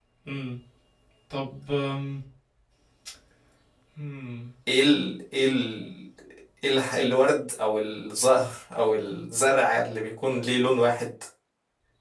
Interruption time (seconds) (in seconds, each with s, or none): none